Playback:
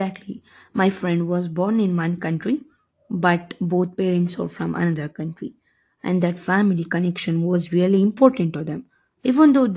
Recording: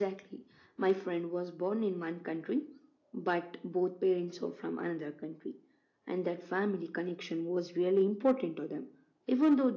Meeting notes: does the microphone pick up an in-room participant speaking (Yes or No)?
No